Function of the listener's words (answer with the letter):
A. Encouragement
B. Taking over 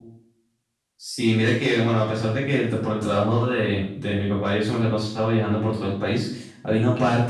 A